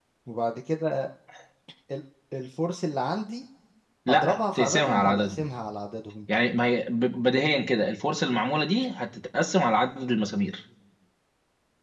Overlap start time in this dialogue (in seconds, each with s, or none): 4.1 s